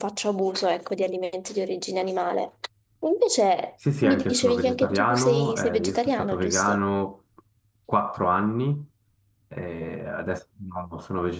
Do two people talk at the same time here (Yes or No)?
Yes